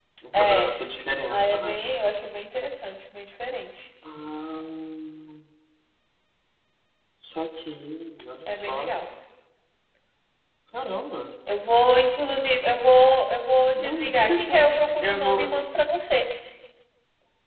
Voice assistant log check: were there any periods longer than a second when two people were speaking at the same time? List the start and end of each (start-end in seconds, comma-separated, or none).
13.8-15.5